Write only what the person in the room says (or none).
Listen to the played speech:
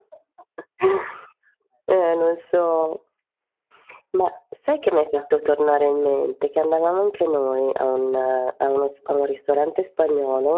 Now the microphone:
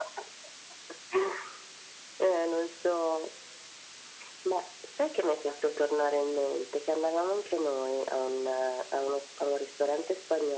none